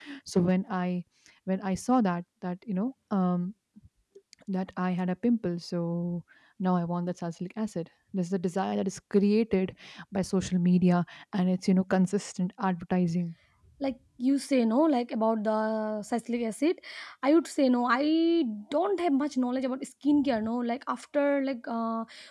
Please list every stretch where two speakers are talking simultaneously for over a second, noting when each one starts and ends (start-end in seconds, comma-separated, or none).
none